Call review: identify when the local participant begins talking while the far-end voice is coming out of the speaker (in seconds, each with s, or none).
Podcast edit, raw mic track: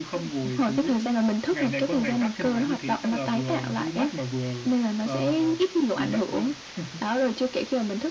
none